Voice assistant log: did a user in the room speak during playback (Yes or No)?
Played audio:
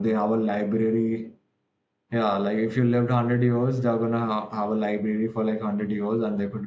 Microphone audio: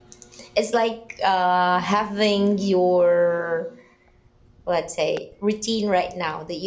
Yes